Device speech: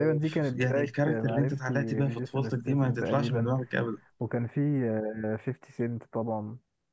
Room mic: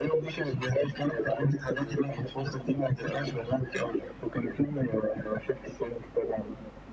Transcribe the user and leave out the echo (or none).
none